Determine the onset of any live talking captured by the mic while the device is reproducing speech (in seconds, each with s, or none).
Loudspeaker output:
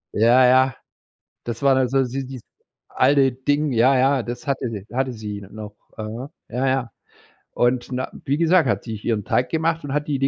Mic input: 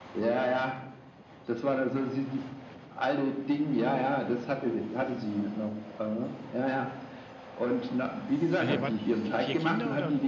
8.6 s